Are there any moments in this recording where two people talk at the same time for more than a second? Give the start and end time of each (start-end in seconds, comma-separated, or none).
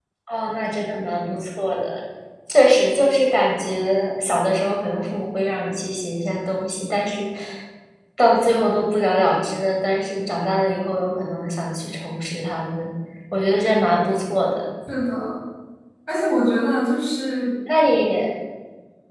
none